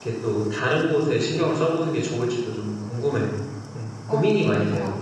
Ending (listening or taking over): taking over